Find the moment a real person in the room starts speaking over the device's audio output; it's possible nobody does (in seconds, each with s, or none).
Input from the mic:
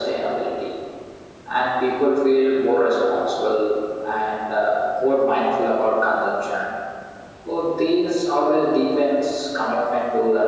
none